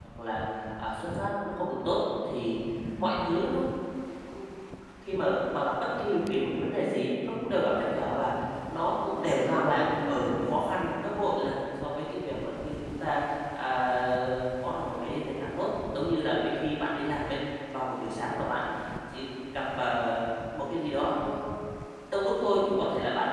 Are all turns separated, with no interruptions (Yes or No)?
No